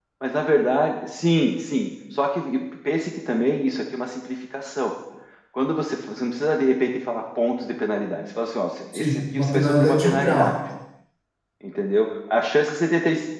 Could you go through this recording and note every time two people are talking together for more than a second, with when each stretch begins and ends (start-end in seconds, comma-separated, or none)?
8.9-10.6